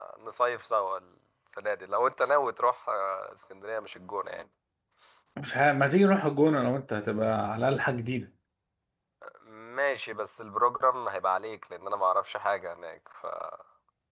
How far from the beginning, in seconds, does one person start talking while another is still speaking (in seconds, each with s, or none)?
none